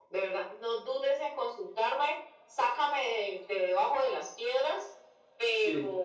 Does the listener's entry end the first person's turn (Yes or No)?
No